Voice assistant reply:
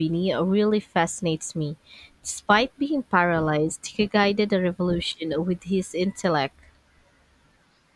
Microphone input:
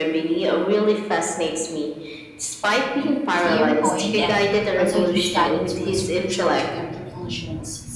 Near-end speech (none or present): present